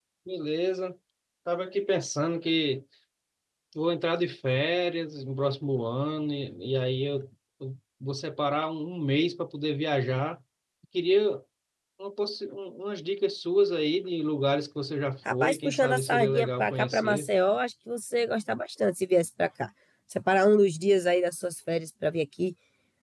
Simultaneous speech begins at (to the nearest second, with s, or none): 15 s